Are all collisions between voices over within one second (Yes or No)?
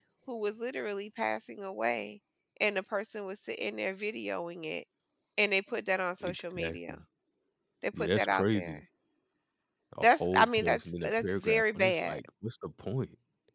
No